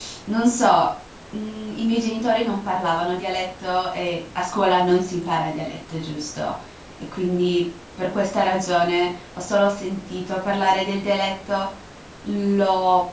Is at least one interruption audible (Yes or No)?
No